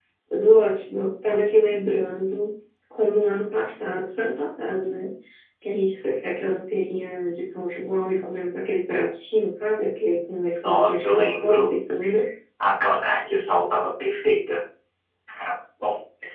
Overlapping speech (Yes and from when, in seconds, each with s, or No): Yes, from 10.6 s